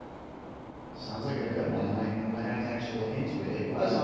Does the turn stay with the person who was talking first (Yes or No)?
Yes